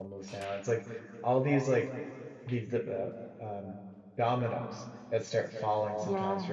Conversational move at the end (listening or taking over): listening